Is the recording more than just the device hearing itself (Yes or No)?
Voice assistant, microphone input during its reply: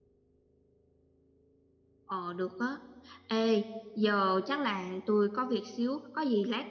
Yes